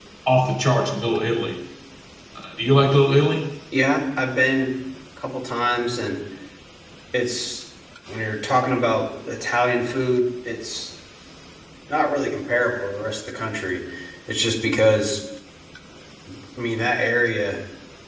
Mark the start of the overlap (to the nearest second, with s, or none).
none